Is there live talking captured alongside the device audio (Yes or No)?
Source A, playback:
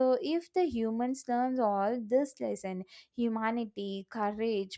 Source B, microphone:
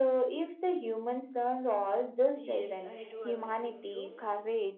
Yes